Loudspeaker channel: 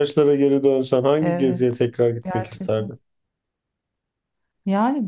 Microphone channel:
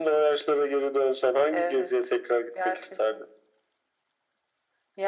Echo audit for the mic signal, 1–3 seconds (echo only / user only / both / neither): echo only